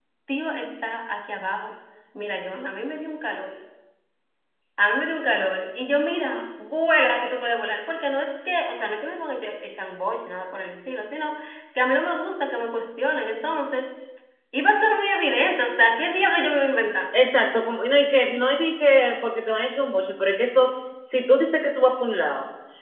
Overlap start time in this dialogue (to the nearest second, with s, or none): none